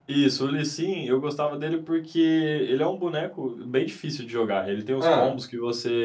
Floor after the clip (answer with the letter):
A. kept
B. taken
A